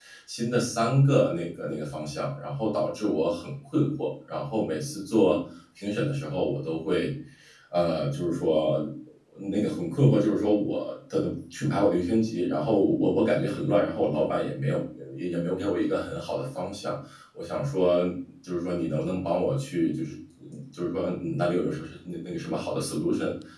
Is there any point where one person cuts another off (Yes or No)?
No